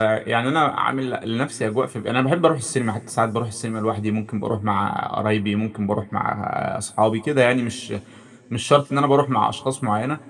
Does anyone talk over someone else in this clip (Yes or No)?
No